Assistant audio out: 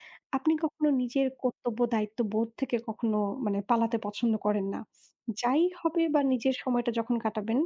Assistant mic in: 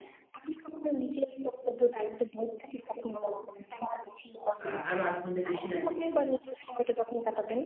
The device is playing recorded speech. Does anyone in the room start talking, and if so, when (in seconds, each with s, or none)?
4.7 s